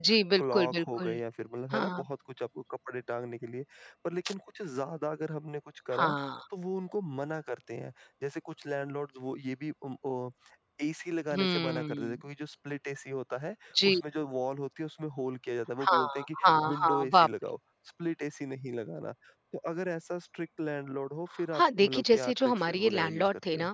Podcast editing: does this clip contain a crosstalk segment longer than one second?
Yes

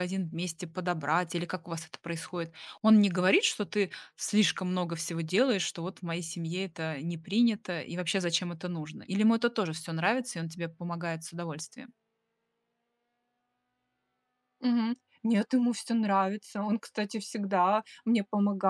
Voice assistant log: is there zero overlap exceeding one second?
Yes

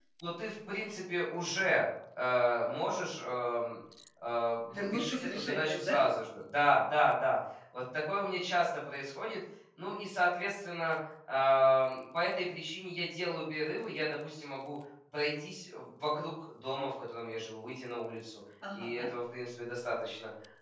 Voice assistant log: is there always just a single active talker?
No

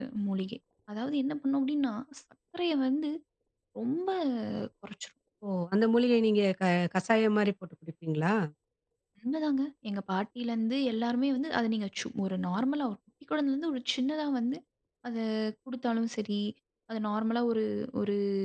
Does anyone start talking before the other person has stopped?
No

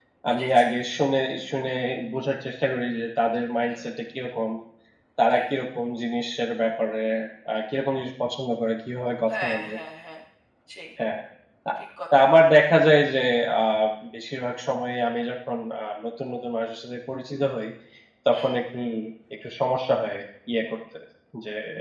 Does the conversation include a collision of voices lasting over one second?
No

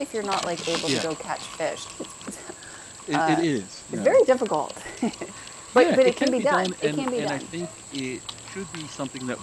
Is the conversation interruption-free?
No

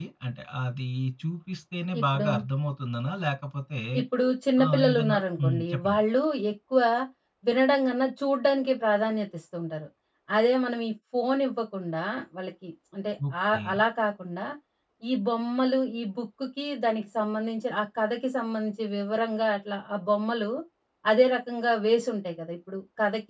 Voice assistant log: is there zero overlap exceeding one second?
No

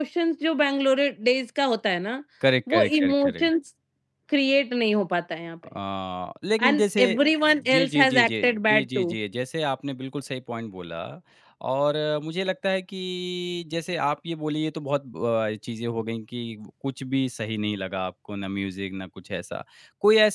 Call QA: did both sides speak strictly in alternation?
No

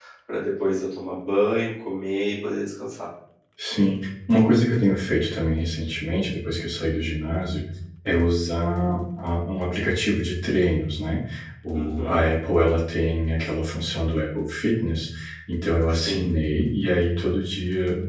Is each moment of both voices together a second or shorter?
Yes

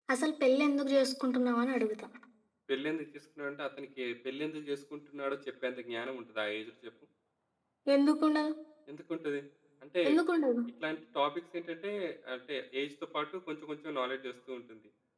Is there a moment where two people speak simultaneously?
No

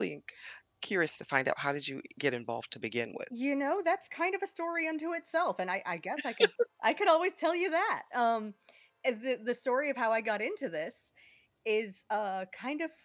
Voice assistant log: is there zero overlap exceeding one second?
Yes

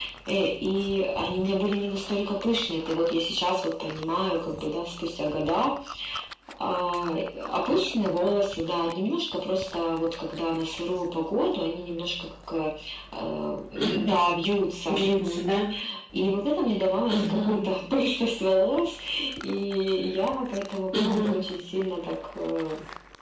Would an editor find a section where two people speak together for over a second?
No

